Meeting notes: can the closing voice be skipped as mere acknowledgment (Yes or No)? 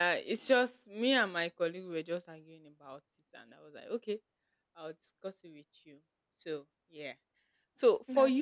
Yes